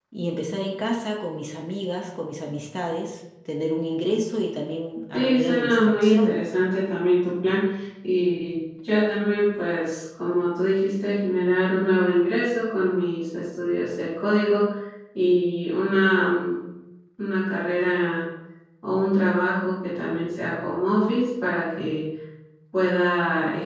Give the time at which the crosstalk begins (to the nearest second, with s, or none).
5 s